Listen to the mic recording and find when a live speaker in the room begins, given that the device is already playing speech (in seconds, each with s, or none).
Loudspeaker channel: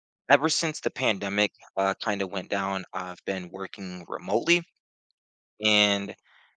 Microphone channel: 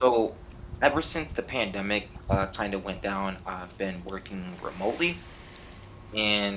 none